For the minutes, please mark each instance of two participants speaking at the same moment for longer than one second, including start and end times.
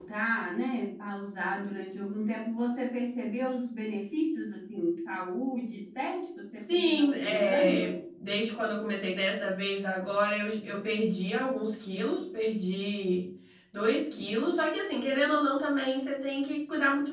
6.7-7.9

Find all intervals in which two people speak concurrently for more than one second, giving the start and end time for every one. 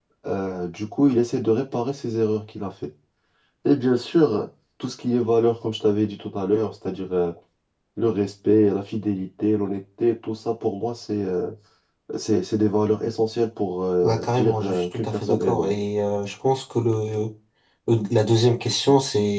14.0-15.7

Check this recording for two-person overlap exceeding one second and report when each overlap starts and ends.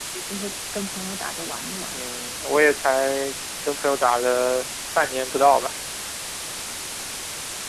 none

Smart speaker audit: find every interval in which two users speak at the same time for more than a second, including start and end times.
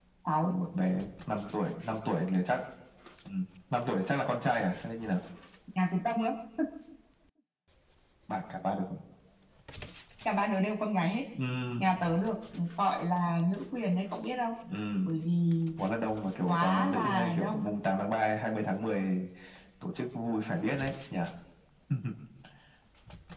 16.5-17.7

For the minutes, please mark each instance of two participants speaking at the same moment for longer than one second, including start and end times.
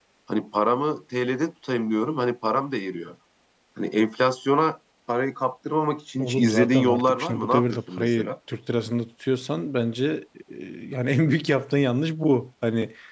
6.2-8.3

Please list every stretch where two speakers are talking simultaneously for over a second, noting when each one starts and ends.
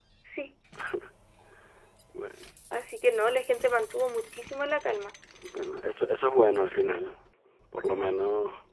none

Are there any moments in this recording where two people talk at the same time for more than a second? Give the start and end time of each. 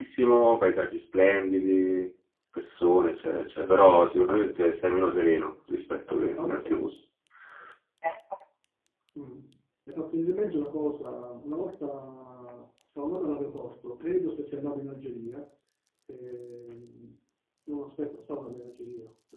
none

